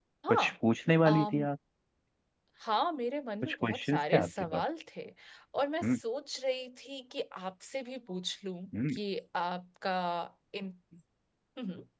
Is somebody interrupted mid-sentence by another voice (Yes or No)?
Yes